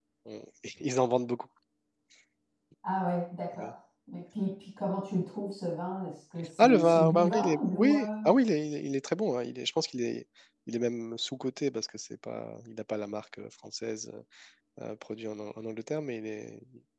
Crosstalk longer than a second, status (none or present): present